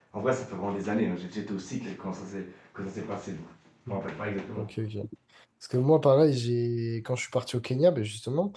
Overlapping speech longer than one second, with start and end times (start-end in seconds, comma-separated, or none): none